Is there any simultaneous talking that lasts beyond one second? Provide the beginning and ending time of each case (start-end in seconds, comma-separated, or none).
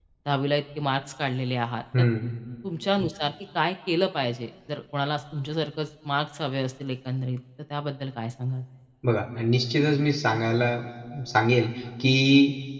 none